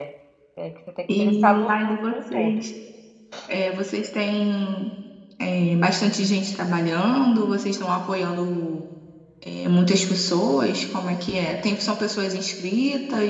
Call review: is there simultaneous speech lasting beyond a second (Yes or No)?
Yes